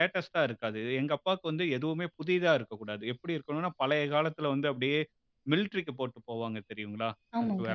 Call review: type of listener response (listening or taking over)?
listening